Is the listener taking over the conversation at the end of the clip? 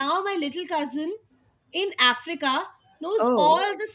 No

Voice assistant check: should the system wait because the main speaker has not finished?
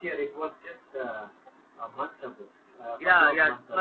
No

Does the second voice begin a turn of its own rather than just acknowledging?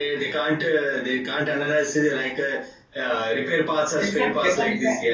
Yes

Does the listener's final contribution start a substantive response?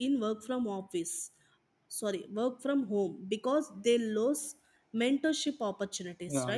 Yes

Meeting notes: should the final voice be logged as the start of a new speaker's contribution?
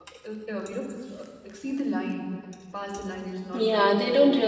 Yes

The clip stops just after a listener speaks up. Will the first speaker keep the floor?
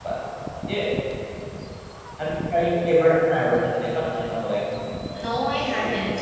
No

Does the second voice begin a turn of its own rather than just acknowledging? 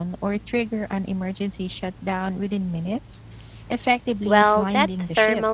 Yes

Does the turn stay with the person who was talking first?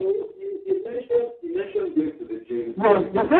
No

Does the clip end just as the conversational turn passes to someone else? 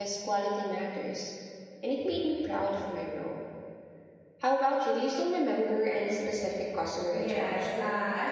Yes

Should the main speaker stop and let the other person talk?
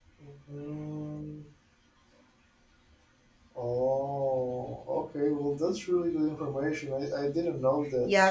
Yes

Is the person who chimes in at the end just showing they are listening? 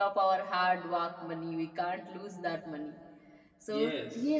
Yes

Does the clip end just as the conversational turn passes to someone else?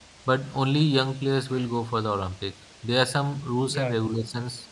No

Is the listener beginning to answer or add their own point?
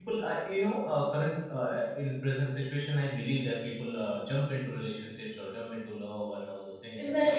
Yes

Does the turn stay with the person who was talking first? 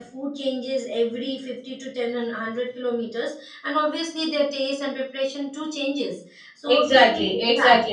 No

